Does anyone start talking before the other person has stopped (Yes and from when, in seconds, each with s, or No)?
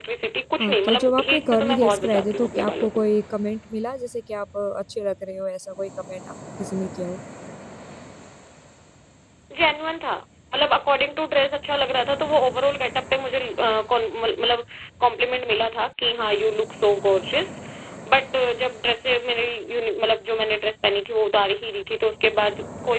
Yes, from 0.6 s